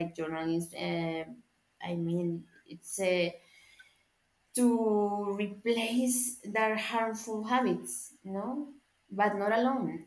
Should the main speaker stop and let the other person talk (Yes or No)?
No